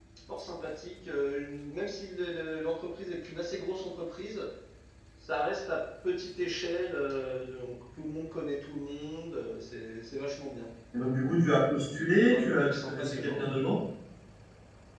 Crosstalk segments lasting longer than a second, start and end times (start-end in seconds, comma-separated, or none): 12.2-13.4